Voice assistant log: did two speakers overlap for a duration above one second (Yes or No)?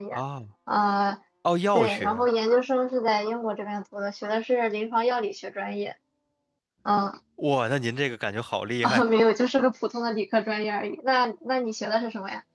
No